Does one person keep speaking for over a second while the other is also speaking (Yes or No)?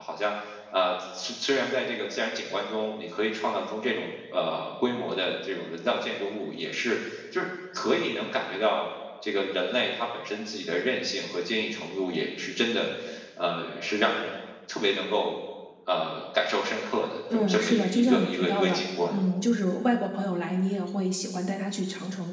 Yes